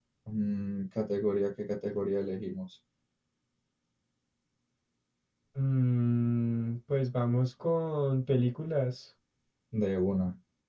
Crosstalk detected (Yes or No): No